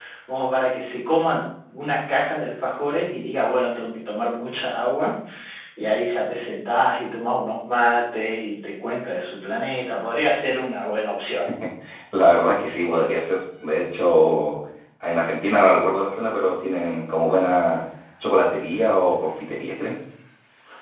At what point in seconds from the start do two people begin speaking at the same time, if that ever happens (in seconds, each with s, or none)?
none